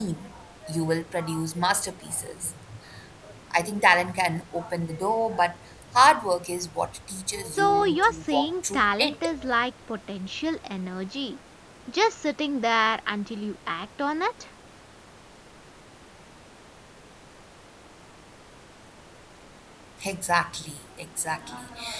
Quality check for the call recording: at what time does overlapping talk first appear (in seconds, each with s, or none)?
7.5 s